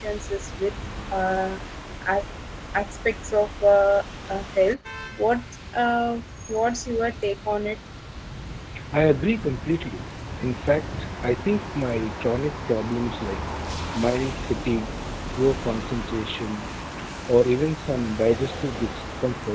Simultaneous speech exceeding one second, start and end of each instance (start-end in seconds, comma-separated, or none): none